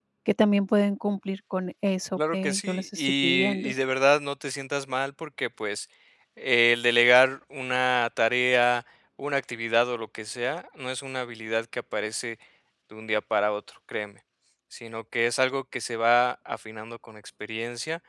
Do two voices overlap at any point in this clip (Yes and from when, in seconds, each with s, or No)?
Yes, from 2.2 s